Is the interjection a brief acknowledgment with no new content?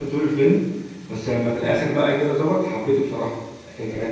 Yes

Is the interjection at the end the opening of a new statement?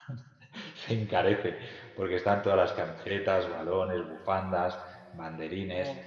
No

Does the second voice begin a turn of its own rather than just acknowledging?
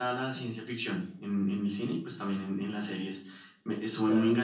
No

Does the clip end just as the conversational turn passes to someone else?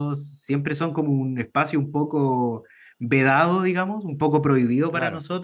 No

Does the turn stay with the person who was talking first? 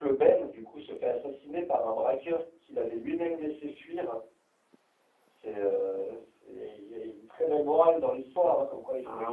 Yes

